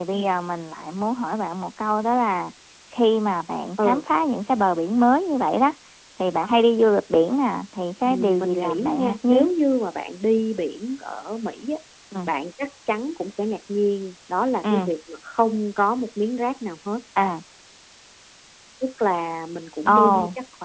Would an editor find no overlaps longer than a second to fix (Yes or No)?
No